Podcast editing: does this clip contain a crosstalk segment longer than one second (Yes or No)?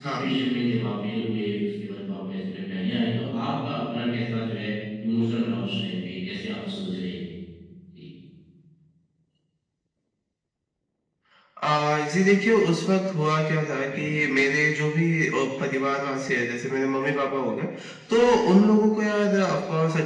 No